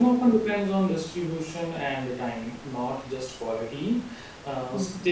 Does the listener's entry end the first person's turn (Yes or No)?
No